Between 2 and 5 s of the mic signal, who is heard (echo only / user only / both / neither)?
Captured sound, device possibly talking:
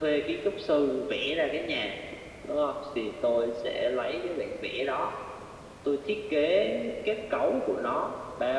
echo only